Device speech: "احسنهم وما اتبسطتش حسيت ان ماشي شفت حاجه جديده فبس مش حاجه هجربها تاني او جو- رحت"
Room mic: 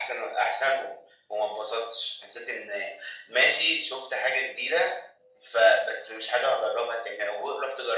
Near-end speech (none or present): none